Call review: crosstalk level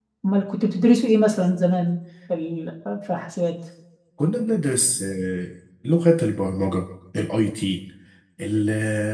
none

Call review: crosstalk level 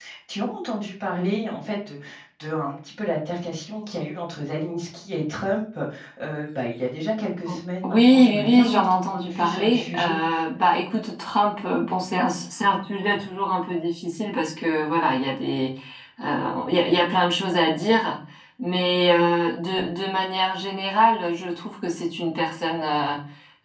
present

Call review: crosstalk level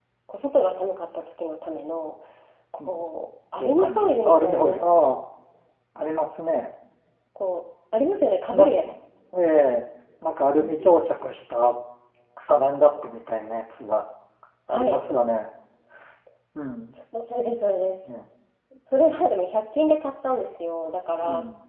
present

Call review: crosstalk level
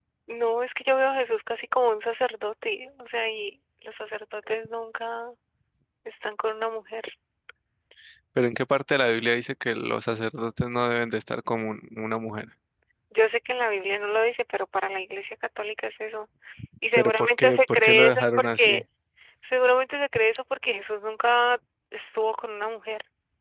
present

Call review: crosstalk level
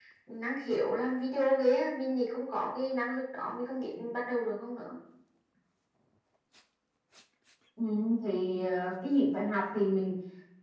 none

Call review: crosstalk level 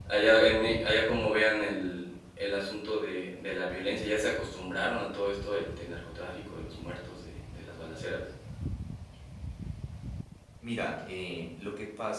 none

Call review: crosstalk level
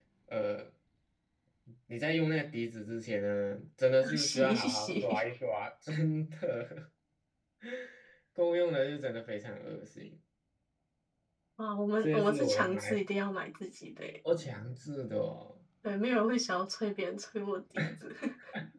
present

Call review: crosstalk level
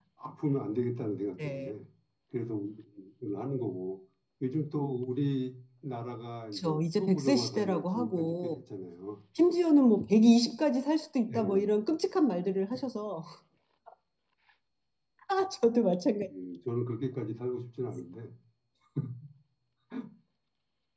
present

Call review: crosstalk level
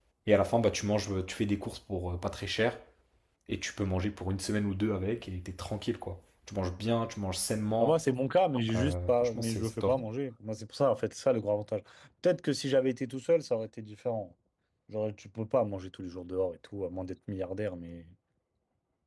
present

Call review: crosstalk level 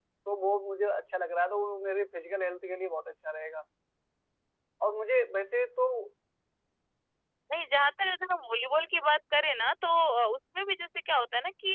none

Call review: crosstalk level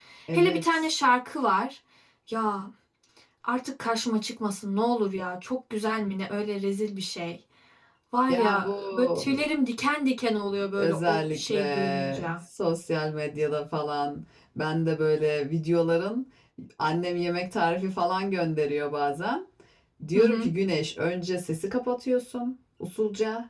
present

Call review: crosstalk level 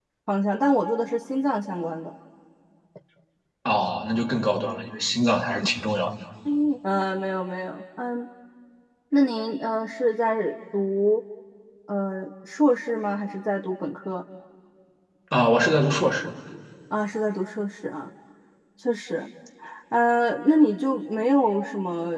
none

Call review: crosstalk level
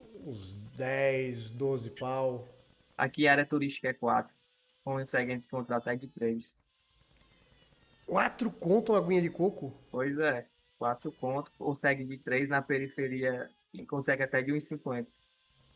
none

